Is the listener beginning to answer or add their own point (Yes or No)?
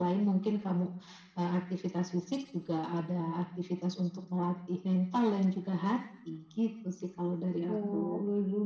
Yes